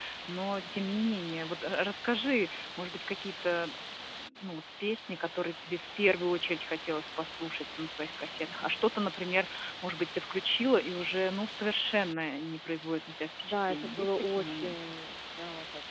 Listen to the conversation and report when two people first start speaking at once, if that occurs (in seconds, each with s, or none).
13.4 s